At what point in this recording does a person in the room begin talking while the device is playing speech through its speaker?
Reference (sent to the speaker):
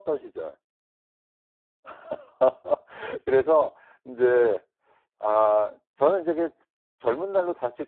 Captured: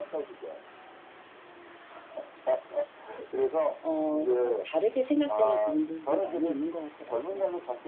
4 s

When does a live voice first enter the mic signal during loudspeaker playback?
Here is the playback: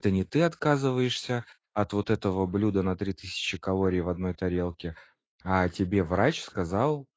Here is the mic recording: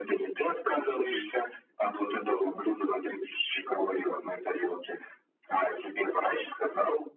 1 s

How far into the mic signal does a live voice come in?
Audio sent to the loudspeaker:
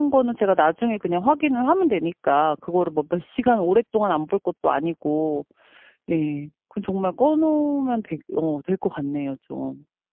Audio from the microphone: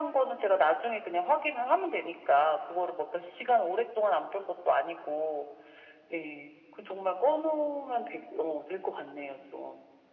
none

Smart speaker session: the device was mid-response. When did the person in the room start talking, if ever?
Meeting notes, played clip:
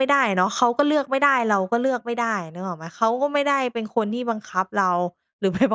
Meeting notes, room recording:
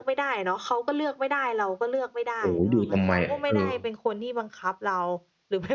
2 s

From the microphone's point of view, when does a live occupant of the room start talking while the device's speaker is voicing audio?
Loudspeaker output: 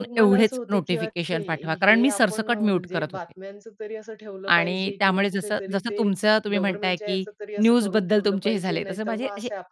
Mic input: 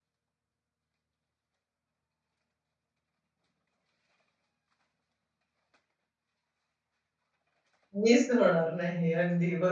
8 s

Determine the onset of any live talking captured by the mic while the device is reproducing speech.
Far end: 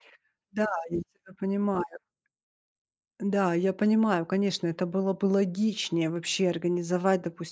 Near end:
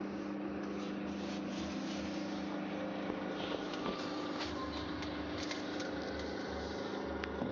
none

